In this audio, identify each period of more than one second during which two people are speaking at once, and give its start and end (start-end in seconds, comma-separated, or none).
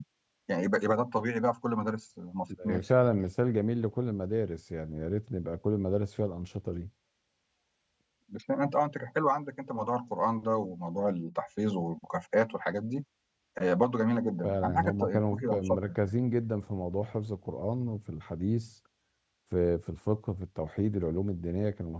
14.4-16.1